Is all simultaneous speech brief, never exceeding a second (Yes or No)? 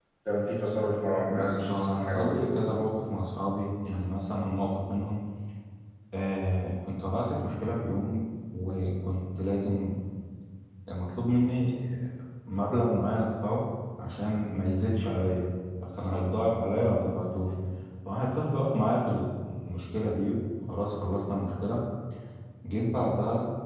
No